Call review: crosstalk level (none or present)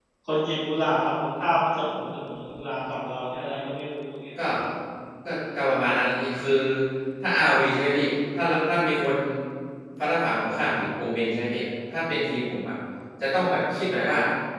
none